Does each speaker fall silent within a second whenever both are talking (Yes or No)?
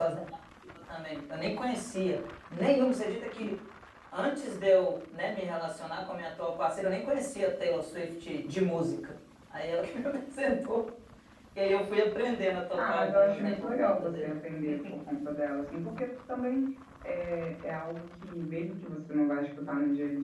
No